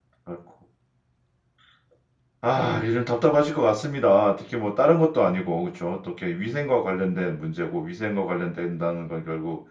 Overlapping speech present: No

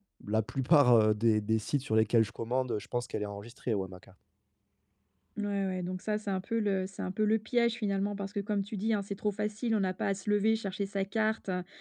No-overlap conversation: Yes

